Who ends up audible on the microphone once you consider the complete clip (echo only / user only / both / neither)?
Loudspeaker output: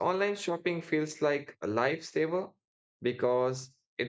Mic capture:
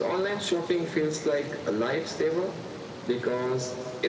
echo only